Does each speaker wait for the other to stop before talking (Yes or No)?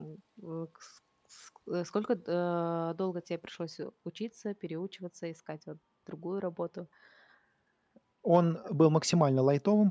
Yes